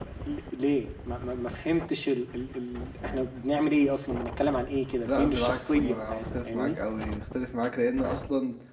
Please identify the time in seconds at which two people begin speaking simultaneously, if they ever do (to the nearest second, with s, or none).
5 s